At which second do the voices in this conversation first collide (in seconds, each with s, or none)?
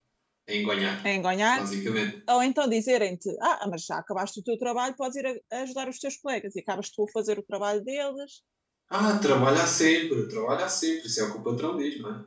none